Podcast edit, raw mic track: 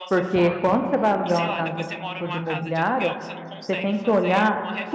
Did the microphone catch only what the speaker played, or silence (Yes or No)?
No